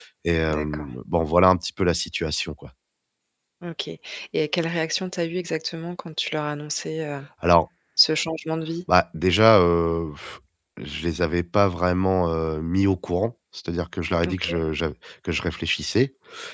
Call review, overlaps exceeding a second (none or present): none